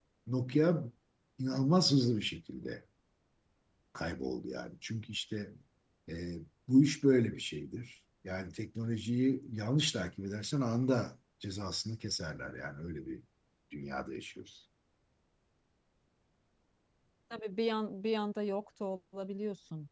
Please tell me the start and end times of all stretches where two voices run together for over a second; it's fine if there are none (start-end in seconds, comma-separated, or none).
none